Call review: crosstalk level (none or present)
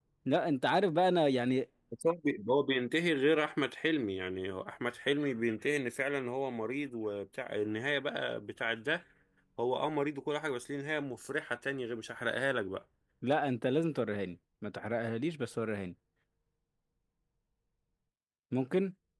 none